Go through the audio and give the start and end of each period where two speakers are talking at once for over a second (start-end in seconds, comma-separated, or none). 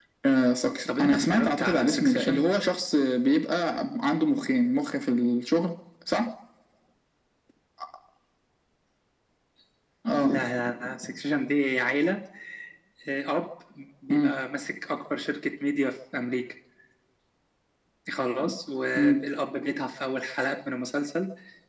1.0-2.4